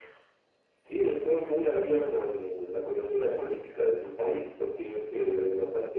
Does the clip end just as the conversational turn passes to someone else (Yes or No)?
No